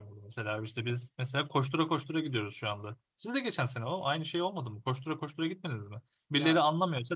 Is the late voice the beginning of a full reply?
No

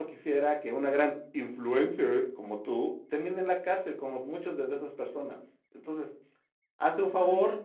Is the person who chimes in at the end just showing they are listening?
No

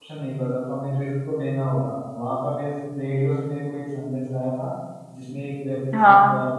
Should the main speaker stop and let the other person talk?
No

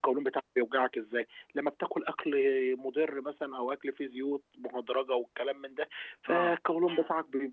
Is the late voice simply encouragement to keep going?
Yes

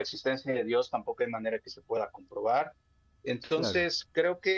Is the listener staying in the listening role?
Yes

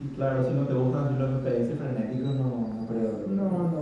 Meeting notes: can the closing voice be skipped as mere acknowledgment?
No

